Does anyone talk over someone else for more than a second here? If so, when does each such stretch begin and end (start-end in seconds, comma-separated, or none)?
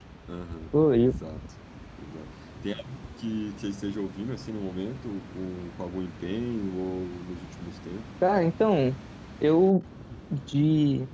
none